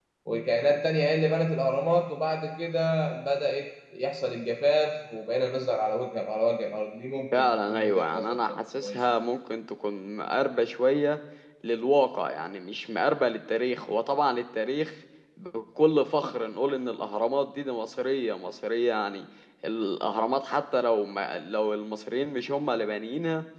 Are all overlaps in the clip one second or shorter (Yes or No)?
No